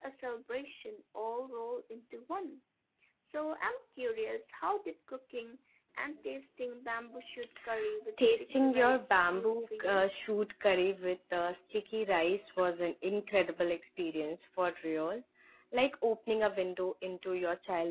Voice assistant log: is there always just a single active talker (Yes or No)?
No